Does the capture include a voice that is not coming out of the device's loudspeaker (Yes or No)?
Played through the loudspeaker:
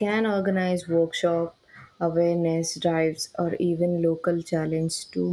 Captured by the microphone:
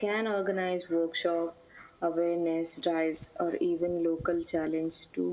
No